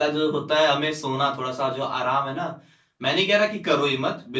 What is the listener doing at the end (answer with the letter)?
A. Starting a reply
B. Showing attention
B